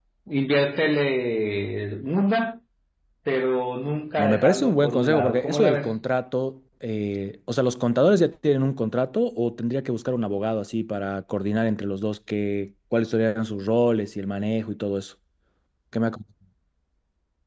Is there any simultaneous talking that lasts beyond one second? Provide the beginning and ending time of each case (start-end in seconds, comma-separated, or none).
4.2-6.0